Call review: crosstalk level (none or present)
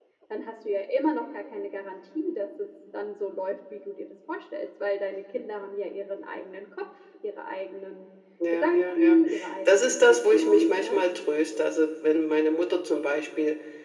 present